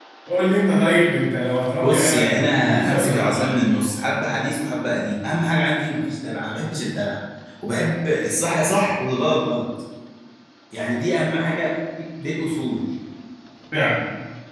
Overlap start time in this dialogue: 1.8 s

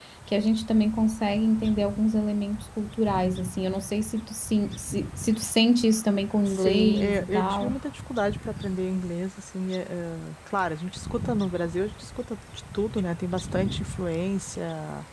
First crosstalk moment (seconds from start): 6.5 s

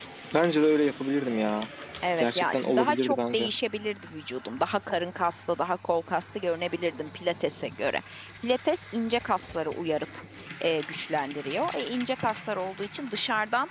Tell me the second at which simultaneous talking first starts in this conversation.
2.2 s

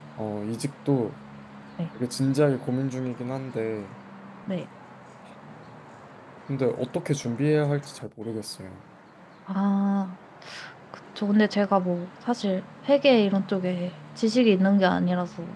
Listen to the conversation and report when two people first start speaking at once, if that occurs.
none

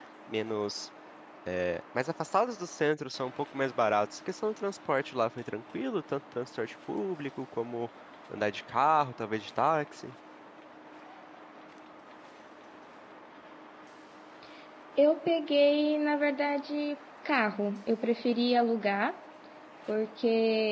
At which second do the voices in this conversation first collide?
none

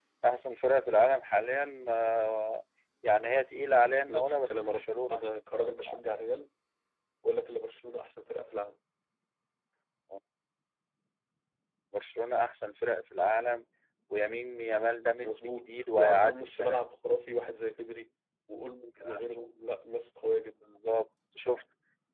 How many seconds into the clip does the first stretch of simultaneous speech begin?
4.1 s

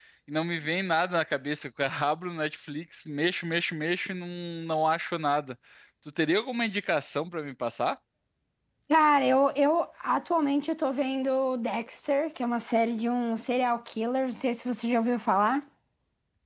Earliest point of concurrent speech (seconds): none

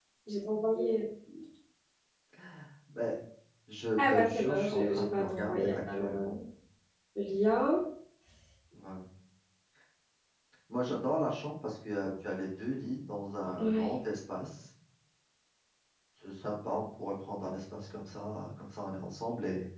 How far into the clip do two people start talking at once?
4.0 s

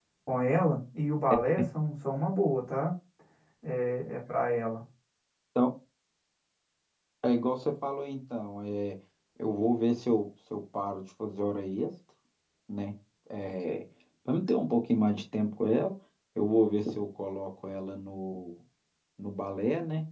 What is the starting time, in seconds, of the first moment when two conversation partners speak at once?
none

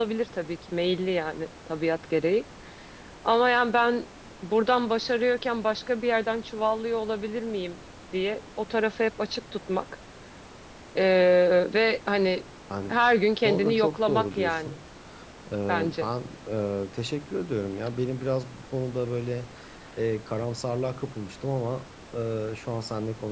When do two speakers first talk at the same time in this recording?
13.4 s

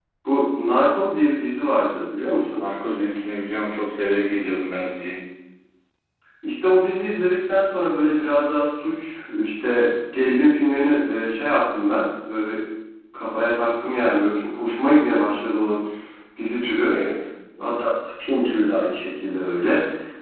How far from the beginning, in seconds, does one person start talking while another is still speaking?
none

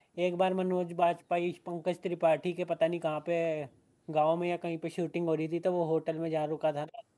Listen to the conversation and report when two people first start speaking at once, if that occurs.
none

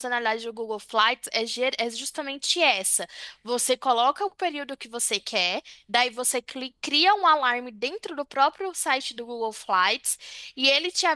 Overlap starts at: none

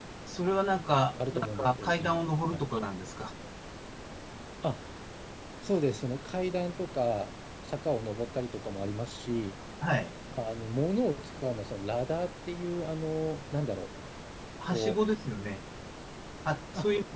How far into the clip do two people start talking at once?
1.3 s

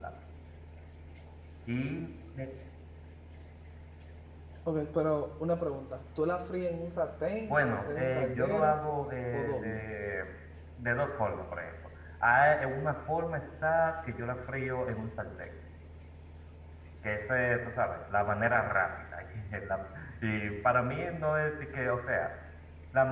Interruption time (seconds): 7.5 s

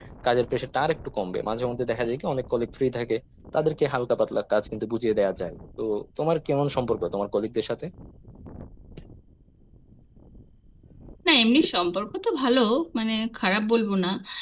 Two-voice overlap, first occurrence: none

